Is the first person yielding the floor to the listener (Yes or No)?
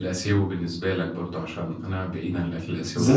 Yes